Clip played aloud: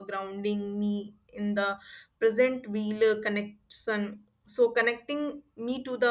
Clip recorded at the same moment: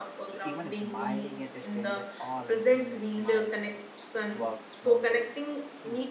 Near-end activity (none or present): present